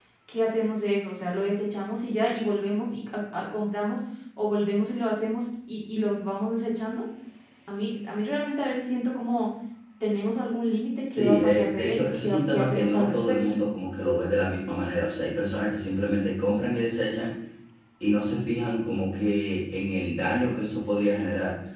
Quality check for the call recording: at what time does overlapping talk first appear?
11 s

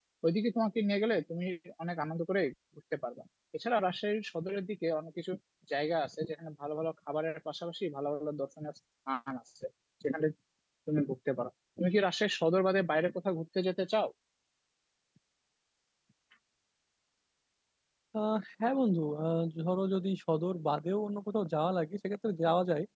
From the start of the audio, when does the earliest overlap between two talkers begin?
none

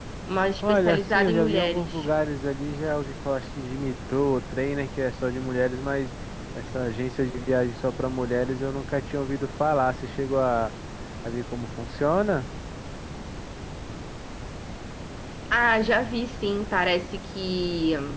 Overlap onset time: 1 s

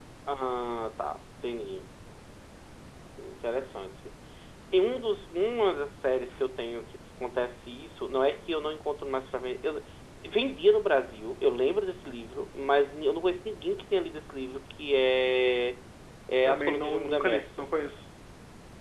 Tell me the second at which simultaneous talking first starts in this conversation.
16 s

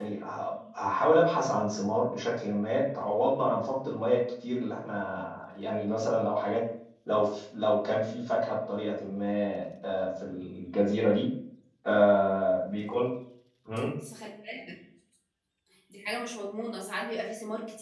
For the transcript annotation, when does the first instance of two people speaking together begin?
none

